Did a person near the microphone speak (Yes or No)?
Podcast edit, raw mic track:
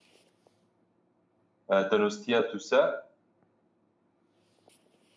Yes